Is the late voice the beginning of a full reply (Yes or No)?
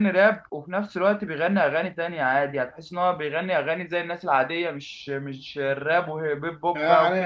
Yes